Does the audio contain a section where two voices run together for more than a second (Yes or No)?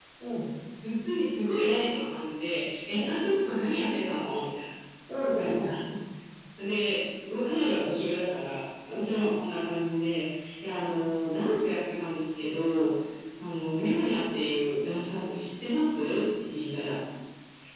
No